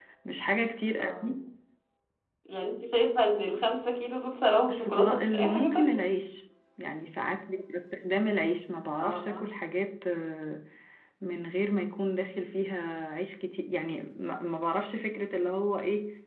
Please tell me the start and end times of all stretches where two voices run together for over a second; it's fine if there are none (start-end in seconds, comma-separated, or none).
4.7-6.0